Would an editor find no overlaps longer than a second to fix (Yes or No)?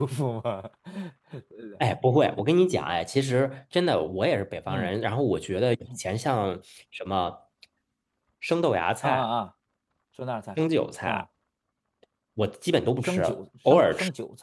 Yes